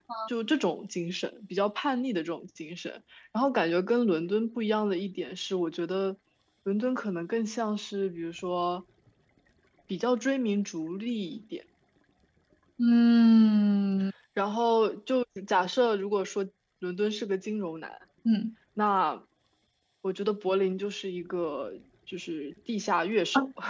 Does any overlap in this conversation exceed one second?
No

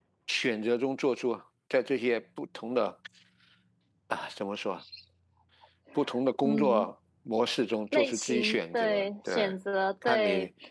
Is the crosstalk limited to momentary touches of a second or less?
No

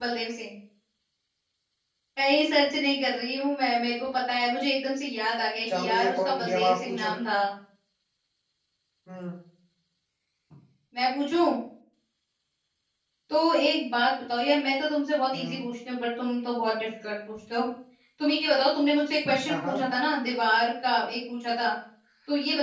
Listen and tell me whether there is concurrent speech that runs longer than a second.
Yes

